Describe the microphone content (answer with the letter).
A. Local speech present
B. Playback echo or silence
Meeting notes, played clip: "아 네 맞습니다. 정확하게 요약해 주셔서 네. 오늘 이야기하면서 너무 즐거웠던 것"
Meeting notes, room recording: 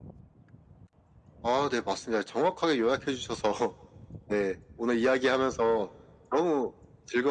B